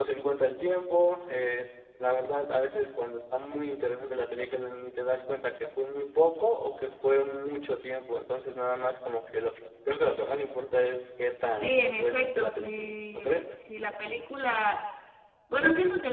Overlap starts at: 11.6 s

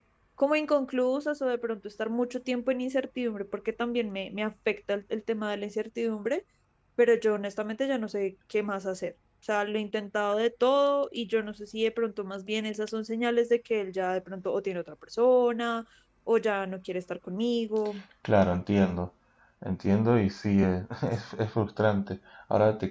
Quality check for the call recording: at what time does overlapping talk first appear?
none

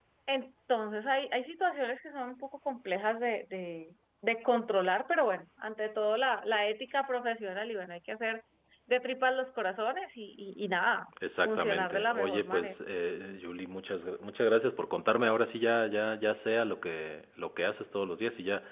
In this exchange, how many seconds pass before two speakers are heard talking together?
11.4 s

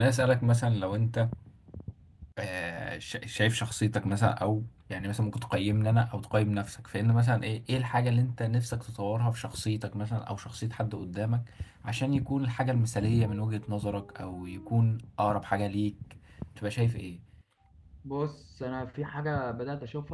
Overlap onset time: none

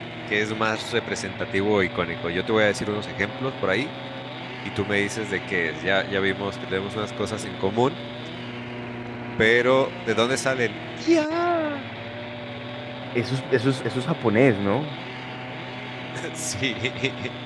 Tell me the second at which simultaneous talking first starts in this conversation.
none

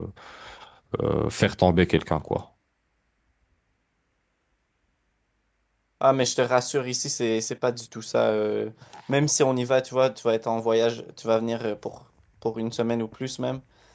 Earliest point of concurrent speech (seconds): none

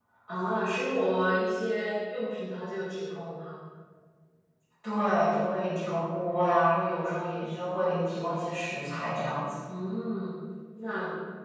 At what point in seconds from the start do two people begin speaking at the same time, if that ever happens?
none

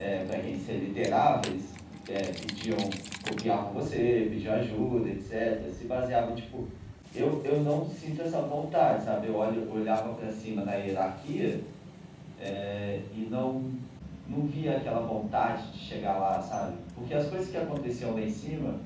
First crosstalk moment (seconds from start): none

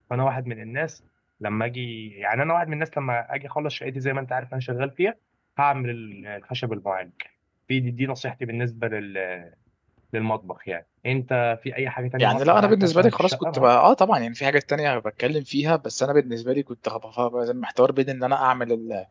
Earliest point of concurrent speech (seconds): 12.2 s

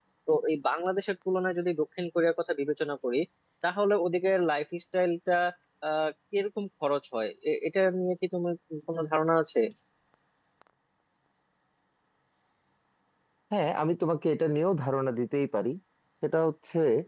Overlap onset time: none

